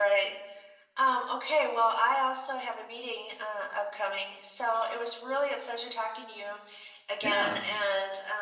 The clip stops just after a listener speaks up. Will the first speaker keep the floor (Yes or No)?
Yes